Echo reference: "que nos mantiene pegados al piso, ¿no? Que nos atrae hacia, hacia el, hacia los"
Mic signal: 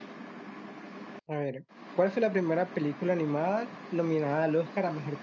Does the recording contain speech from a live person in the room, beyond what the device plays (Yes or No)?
Yes